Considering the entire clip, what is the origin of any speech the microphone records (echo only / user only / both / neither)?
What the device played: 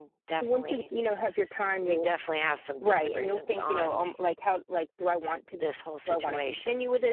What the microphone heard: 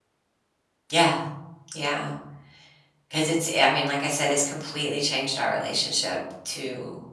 user only